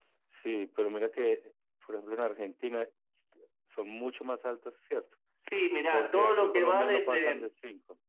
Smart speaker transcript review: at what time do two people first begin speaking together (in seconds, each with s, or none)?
5.9 s